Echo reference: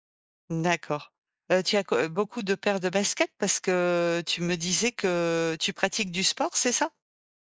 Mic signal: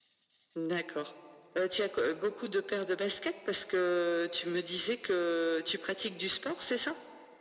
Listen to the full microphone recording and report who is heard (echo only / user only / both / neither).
echo only